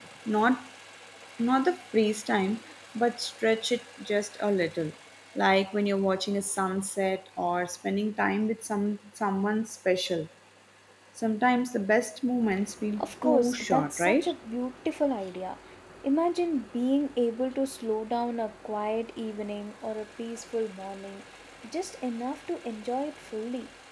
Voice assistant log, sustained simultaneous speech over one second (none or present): present